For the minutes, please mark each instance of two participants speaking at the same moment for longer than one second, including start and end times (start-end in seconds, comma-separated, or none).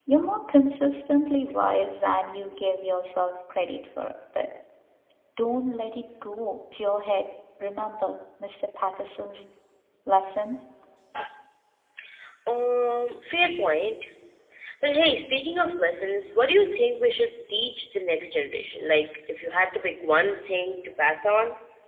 none